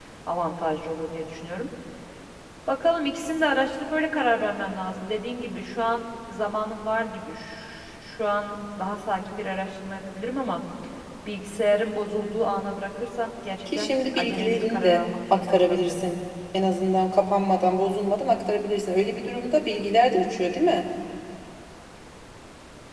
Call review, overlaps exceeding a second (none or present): present